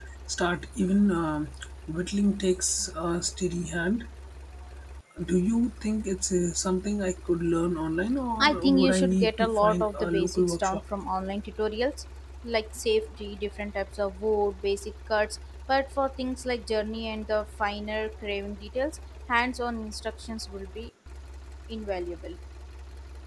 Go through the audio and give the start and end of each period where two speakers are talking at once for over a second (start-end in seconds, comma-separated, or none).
8.4-10.8